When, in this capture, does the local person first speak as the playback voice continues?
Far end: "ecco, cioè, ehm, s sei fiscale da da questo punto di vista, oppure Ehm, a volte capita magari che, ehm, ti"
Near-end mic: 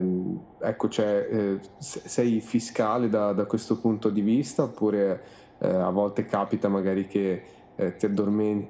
none

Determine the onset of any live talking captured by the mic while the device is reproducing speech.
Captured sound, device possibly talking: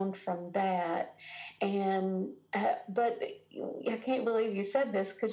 none

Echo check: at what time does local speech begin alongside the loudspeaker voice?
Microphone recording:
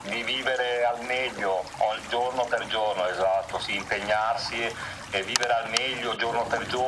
none

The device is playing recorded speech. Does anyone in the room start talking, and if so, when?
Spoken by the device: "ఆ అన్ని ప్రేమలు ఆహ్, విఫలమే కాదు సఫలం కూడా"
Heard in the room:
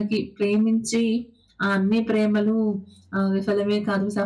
none

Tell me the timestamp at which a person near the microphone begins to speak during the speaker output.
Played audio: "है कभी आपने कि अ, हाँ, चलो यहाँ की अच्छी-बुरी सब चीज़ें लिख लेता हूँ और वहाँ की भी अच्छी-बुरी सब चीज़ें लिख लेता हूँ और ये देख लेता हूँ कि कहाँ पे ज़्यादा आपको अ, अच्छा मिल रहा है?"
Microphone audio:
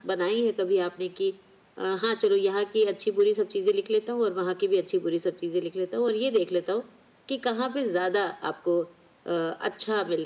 none

